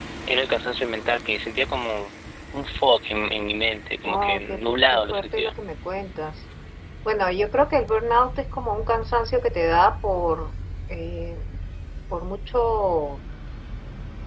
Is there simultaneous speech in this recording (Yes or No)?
Yes